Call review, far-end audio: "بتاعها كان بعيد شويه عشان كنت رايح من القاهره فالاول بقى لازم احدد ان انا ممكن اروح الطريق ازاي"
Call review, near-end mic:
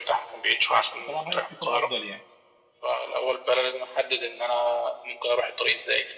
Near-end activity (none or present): present